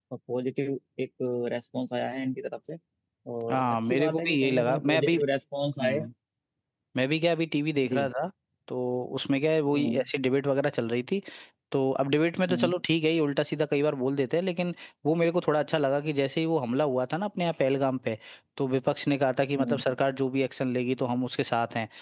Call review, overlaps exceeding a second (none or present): present